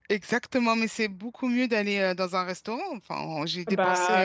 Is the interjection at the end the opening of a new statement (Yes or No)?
Yes